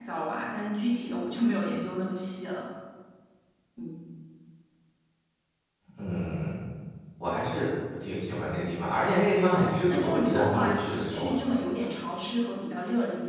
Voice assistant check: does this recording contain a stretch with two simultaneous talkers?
Yes, from 9.5 s

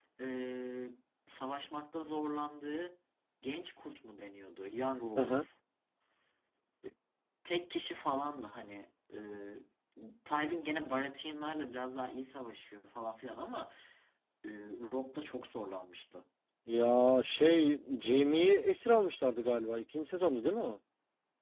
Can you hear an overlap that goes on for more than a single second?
No

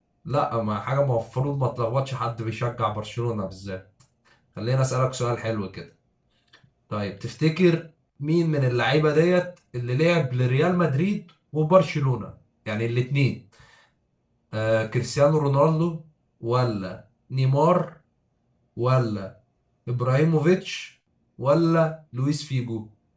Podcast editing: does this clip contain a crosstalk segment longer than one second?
No

